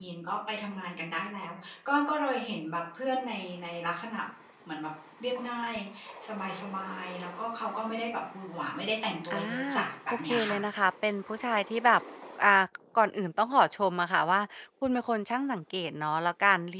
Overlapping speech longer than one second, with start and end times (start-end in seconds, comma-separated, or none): none